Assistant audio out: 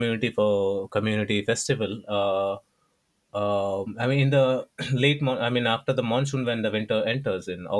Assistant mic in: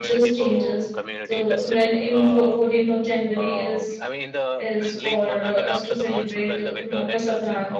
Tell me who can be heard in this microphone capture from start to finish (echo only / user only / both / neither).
both